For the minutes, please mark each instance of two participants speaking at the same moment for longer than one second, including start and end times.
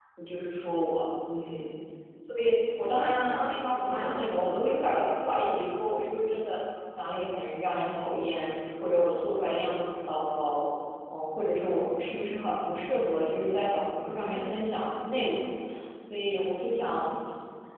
3.0-4.2

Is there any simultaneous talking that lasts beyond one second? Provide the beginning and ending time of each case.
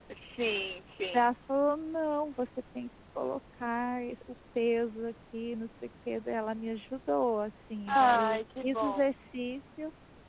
7.9-9.1

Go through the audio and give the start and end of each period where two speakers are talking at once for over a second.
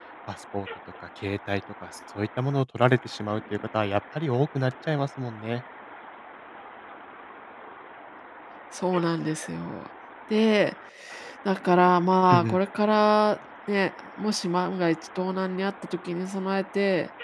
none

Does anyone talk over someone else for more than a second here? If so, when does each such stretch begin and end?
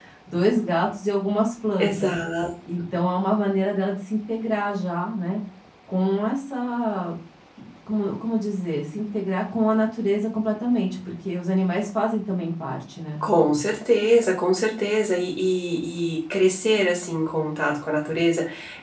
none

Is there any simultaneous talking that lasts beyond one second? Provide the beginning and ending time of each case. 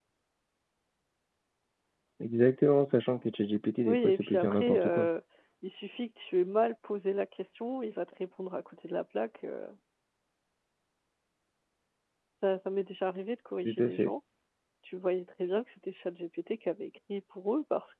3.9-5.1

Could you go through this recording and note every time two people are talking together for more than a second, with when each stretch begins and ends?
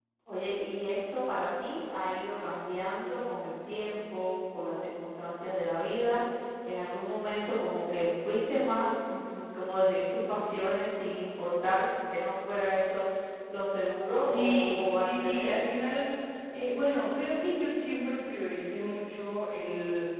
14.2-15.6

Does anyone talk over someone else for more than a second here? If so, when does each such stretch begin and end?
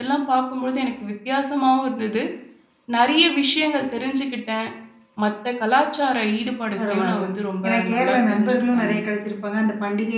7.6-9.0

